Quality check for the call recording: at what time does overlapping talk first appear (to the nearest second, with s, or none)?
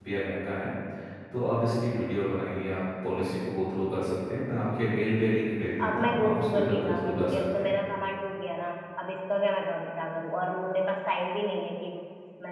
6 s